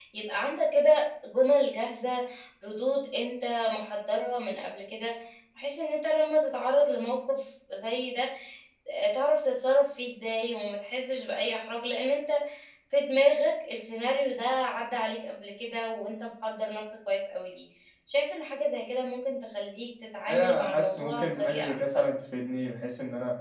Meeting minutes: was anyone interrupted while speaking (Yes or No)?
Yes